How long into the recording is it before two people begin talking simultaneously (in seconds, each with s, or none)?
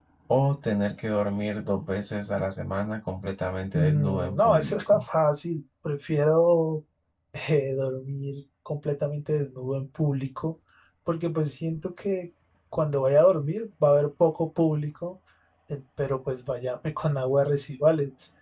3.7 s